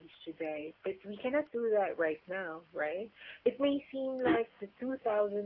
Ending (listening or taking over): listening